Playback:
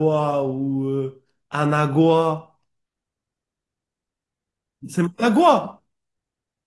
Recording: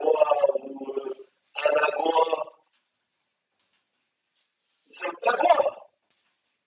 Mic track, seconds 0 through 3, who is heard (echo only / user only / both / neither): echo only